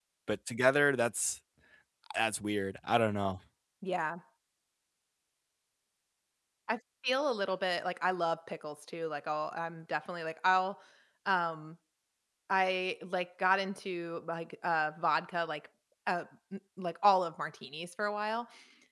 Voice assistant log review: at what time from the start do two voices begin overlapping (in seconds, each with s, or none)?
none